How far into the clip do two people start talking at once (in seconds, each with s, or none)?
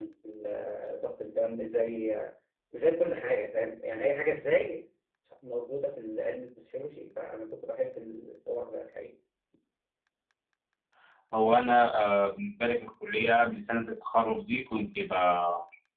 none